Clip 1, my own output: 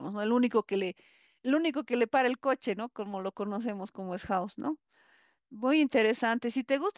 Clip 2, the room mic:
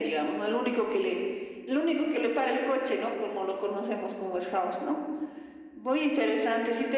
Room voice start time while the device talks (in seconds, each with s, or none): none